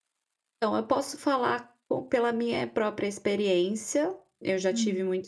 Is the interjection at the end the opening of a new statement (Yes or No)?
No